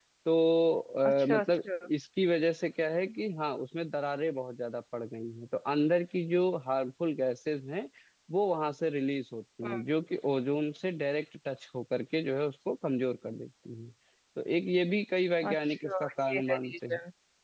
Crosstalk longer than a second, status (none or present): present